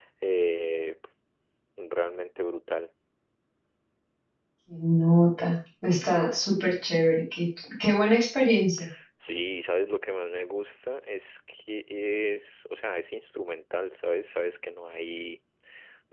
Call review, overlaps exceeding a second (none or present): none